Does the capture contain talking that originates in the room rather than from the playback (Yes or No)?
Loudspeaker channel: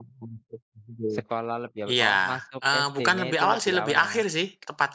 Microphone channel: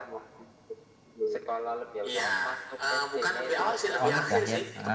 Yes